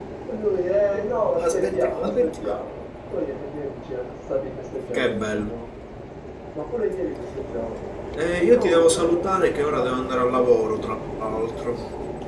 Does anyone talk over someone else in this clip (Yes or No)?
Yes